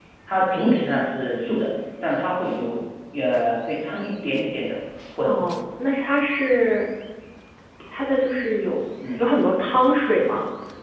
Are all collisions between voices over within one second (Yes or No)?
Yes